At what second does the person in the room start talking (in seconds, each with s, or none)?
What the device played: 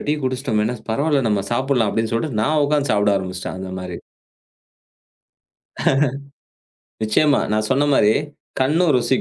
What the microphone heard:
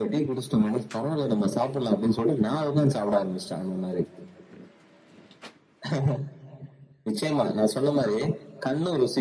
none